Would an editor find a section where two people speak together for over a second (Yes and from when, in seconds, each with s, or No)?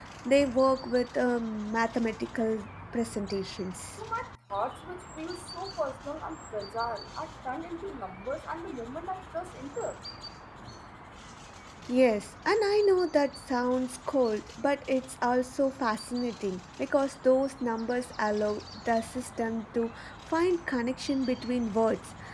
No